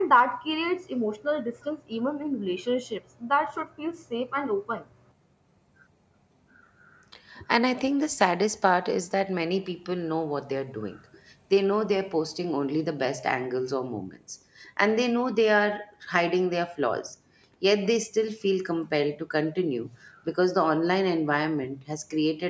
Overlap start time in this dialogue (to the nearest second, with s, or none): none